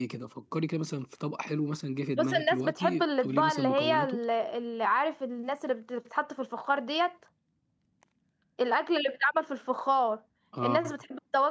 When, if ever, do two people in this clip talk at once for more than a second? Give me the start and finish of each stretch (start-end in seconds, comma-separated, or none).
2.2-4.2